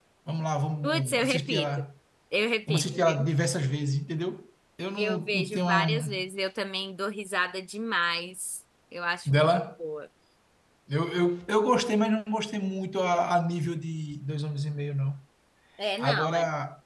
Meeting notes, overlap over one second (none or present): present